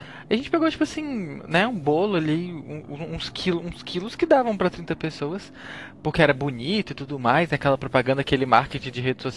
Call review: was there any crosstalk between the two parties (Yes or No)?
No